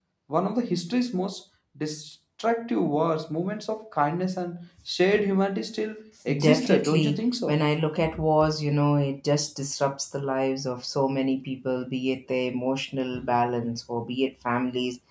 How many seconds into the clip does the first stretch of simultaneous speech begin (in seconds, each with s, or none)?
6.4 s